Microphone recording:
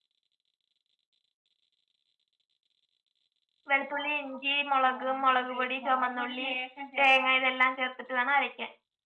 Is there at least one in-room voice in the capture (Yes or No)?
Yes